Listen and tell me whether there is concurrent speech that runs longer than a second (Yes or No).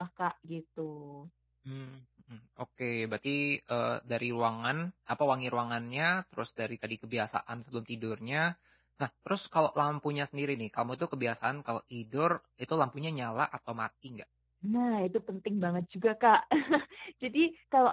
No